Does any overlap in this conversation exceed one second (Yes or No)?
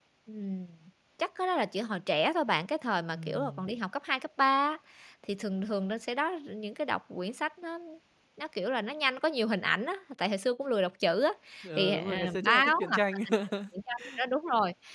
Yes